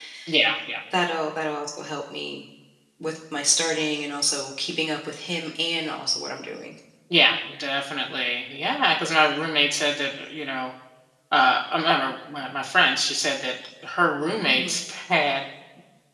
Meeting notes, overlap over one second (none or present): none